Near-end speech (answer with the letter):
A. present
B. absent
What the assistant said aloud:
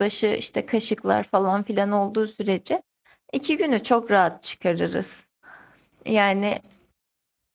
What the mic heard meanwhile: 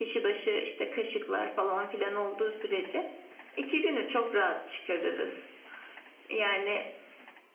B